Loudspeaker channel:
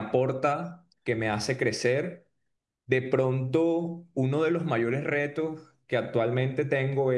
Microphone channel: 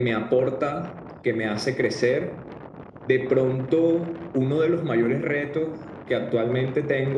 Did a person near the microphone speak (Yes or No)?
No